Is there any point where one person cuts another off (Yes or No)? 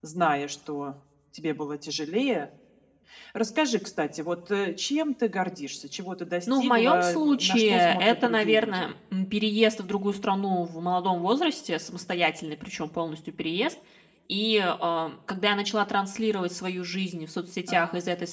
Yes